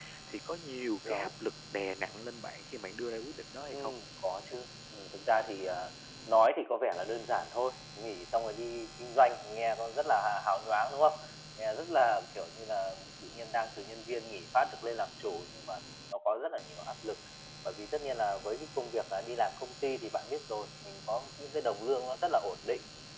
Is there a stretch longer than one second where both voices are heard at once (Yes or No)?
No